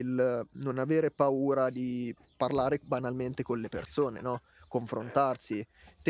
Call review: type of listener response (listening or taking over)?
listening